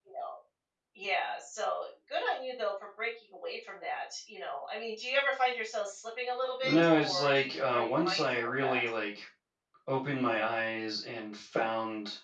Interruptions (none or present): present